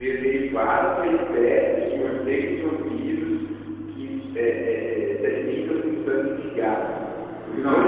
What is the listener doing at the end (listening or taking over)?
taking over